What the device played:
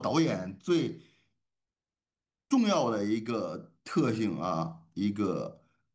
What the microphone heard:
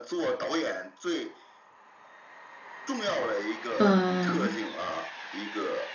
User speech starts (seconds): 4 s

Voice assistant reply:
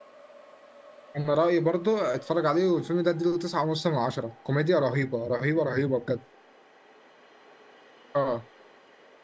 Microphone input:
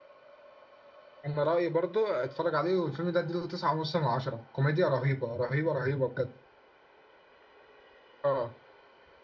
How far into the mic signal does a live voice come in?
none

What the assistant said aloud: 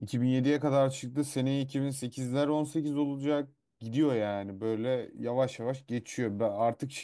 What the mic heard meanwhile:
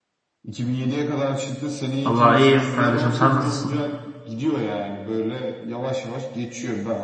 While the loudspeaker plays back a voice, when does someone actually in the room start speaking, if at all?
2 s

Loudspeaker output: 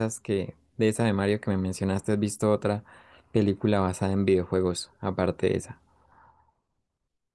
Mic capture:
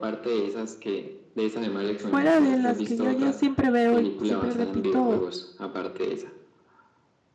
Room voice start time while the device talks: 2 s

